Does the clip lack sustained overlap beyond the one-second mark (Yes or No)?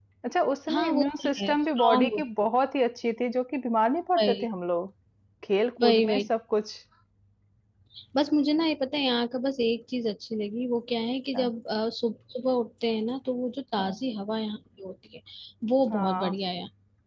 No